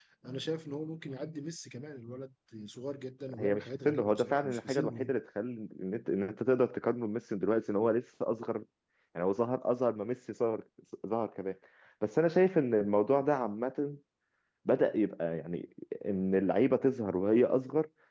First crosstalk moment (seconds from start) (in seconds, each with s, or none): 3.3 s